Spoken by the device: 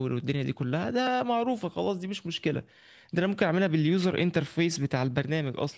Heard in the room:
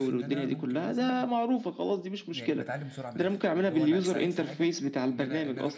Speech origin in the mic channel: both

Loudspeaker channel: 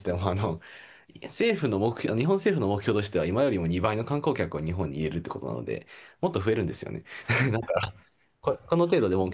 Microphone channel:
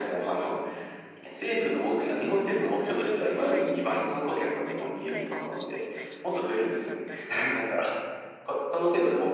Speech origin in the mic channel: both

